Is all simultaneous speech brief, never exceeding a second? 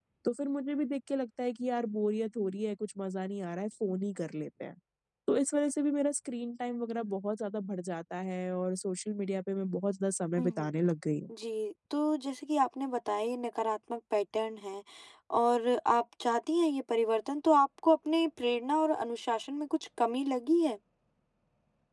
Yes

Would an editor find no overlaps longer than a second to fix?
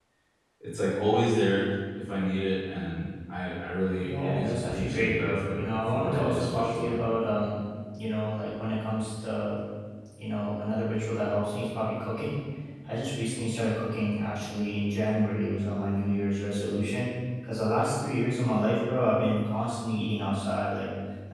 No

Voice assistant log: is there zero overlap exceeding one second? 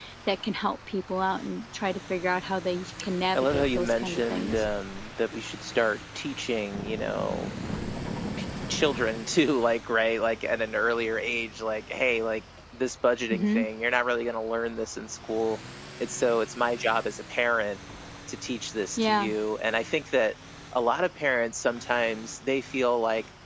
No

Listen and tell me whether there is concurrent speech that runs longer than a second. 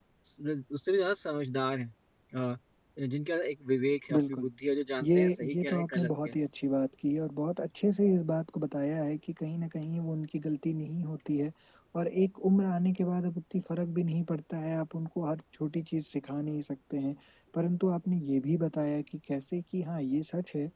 Yes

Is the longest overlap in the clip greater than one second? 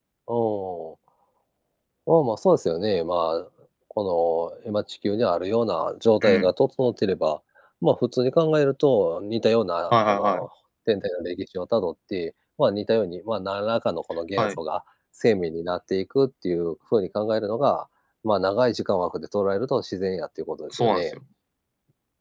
No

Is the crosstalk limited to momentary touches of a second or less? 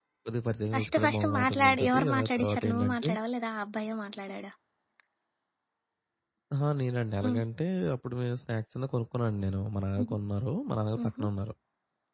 No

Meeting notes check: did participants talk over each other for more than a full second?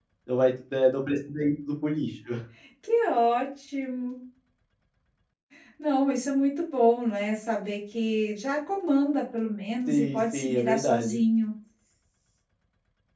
Yes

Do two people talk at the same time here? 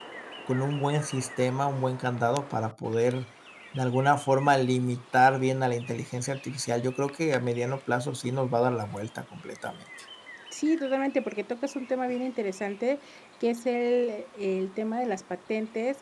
No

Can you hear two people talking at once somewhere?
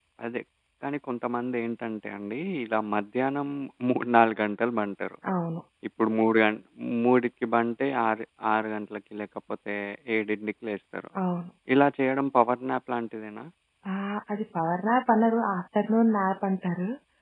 No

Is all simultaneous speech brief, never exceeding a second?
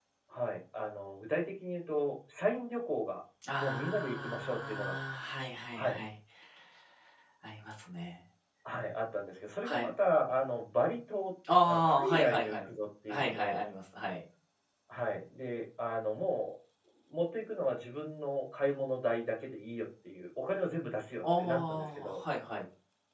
No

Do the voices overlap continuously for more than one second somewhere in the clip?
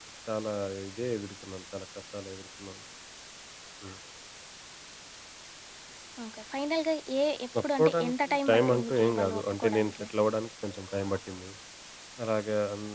Yes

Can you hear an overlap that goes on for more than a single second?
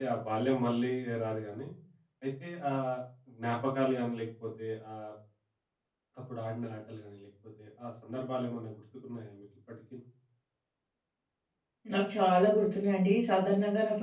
No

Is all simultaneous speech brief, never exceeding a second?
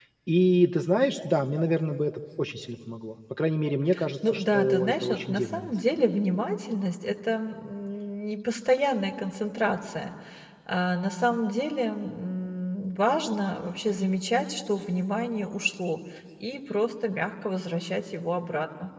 No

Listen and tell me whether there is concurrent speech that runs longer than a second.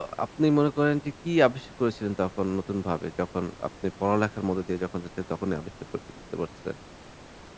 No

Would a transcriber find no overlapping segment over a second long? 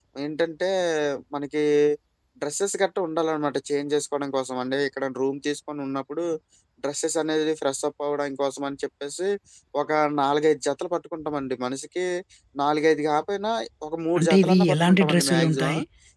No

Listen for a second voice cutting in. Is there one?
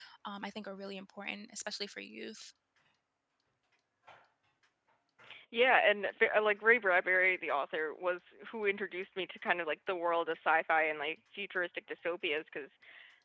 No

